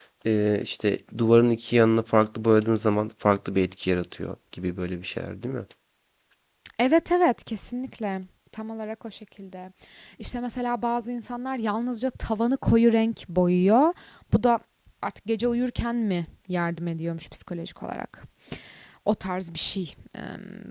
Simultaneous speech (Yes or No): No